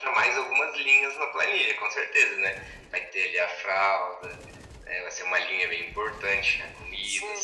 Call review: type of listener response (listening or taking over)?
taking over